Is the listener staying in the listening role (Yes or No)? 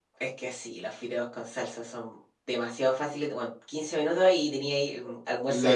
No